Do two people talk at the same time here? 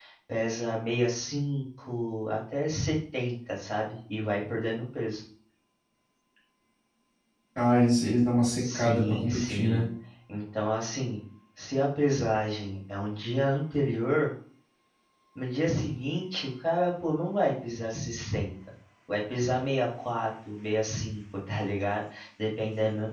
Yes, from 8.6 s

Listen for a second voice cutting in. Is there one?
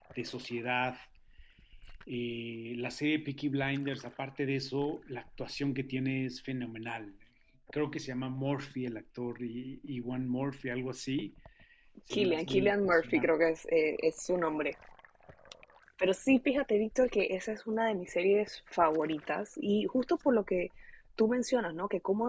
Yes, from 12.1 s

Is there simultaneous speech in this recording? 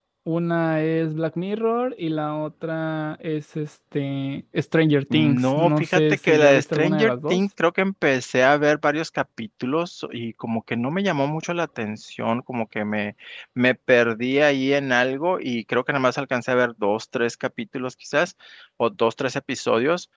Yes, from 5.1 s

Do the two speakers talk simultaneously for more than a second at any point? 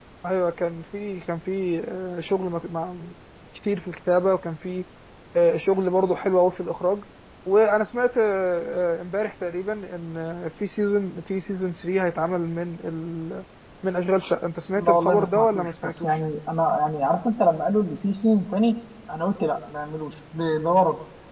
Yes, from 14.8 s

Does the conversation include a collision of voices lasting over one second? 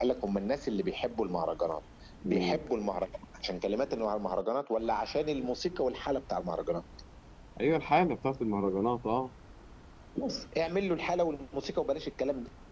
No

